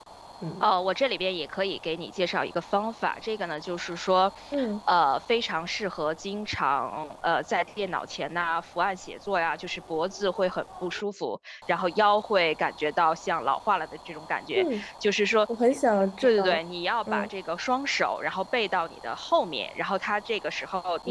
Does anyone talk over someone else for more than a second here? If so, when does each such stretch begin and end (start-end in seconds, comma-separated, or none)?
none